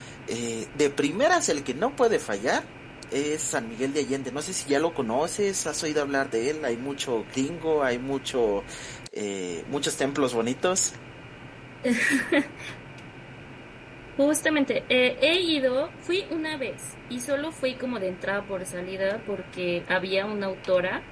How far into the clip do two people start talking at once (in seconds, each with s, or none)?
none